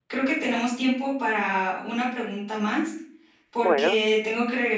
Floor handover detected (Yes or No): No